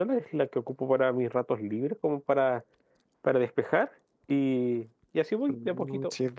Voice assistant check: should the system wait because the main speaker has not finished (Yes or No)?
No